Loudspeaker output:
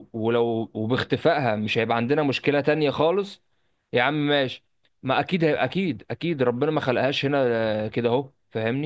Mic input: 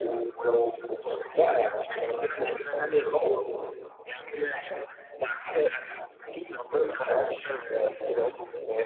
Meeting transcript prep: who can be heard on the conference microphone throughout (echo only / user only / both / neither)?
echo only